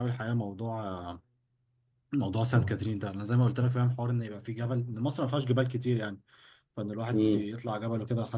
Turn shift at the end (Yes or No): No